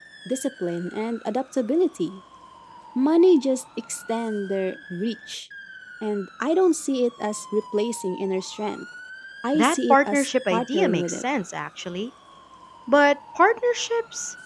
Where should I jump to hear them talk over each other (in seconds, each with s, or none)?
9.5 s